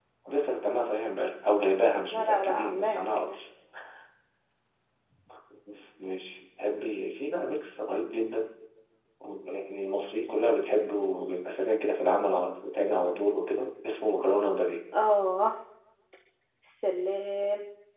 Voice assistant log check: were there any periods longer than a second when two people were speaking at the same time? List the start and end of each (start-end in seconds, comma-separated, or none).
2.1-3.3